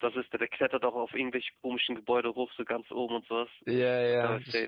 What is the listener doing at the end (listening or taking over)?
taking over